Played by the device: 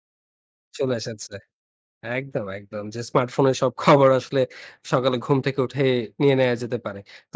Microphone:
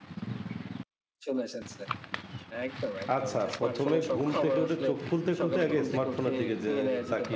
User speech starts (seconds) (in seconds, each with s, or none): 3.2 s